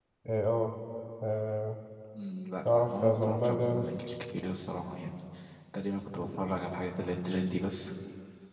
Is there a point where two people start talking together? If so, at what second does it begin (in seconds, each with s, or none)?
2.6 s